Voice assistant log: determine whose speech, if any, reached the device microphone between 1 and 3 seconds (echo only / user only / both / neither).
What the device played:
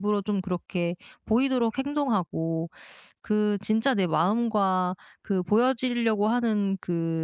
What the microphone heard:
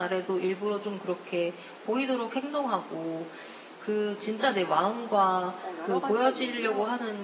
echo only